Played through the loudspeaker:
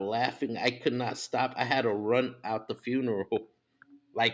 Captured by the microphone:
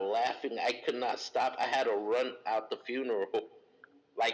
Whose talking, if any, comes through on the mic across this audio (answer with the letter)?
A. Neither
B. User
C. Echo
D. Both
C